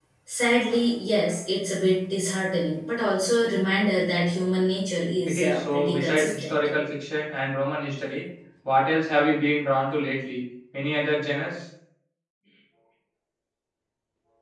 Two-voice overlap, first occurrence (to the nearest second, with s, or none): 5 s